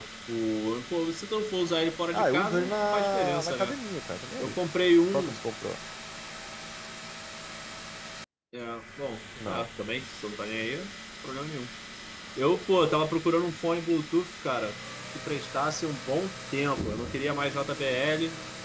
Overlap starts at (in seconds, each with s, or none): 2.1 s